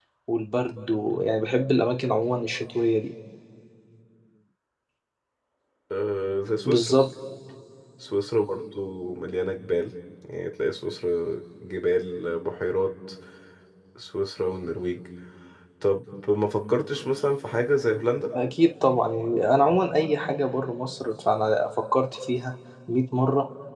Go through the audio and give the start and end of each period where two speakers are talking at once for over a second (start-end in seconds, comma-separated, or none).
none